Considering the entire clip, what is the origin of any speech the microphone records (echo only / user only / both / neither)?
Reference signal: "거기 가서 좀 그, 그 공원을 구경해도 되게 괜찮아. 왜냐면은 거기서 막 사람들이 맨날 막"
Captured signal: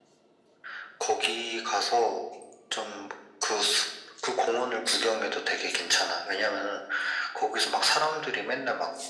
echo only